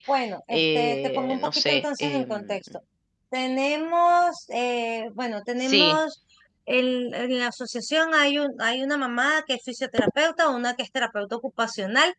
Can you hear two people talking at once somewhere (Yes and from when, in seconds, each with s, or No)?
Yes, from 0.5 s